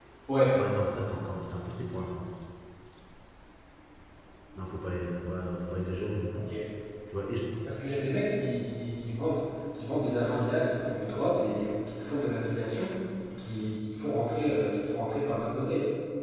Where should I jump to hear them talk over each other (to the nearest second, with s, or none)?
none